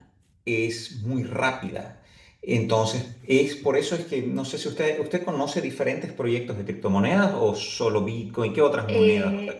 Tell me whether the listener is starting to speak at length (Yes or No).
Yes